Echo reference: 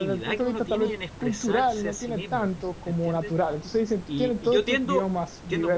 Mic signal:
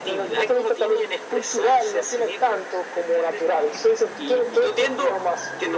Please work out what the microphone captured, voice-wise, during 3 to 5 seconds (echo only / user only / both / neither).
echo only